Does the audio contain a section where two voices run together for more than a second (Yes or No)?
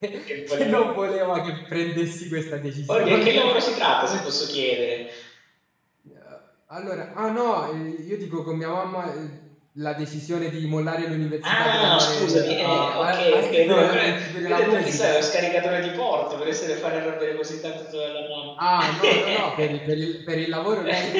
Yes